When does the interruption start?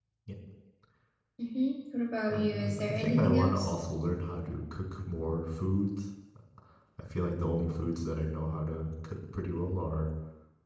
2.3 s

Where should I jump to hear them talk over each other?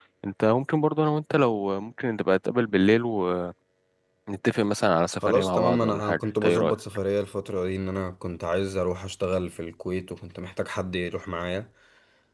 5.2 s

